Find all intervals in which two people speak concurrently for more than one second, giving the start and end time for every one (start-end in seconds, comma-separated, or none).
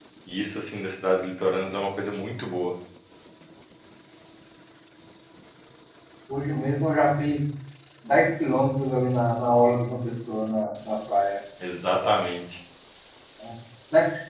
none